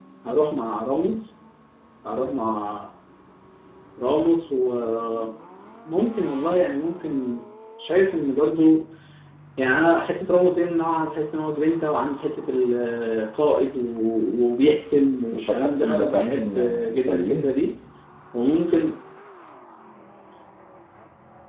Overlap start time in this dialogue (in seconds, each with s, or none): 15.3 s